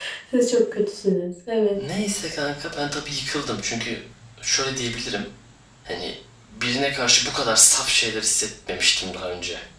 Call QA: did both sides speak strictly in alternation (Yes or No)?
Yes